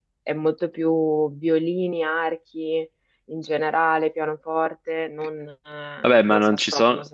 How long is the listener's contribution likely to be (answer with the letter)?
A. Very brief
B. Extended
B